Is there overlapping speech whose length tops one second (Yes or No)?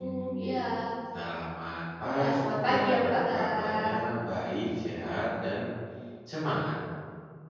Yes